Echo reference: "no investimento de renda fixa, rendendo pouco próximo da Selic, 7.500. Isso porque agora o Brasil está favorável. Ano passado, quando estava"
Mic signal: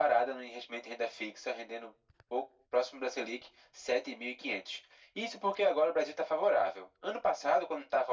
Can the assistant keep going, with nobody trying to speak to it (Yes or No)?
Yes